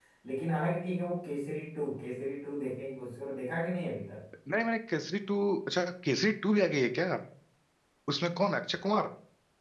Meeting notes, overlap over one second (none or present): none